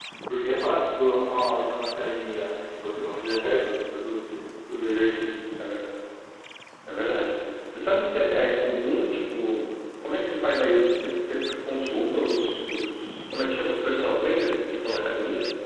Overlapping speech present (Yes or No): No